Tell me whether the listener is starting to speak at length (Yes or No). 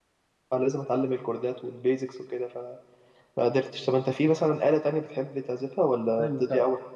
Yes